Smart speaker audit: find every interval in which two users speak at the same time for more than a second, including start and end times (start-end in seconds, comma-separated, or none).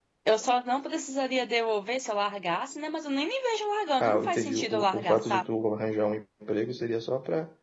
4.0-5.4